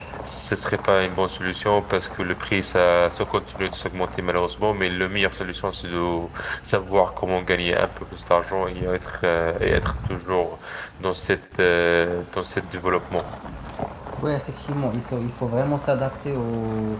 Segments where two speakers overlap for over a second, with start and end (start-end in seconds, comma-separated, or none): none